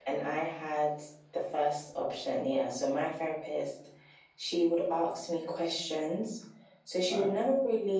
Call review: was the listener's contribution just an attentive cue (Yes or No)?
Yes